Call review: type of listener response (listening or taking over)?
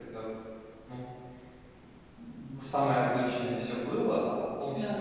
listening